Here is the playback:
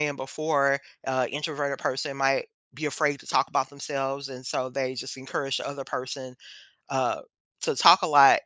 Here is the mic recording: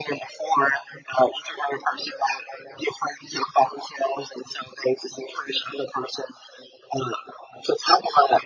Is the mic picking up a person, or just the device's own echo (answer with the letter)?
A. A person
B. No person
B